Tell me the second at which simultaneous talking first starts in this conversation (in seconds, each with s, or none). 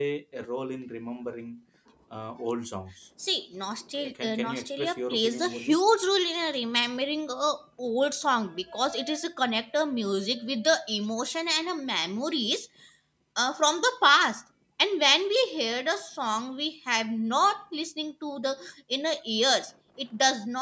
4.0 s